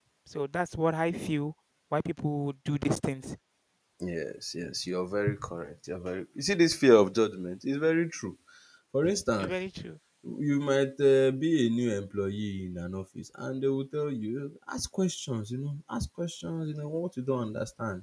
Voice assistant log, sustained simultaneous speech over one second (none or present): none